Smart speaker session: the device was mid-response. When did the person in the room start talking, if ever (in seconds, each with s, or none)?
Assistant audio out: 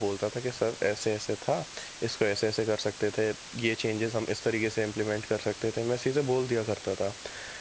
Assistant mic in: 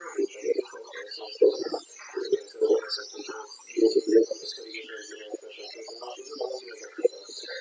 none